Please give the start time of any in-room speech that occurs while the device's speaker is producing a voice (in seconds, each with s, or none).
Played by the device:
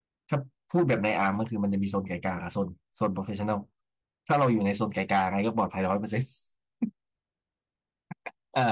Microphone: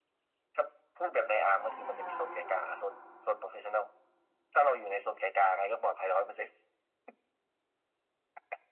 1.6 s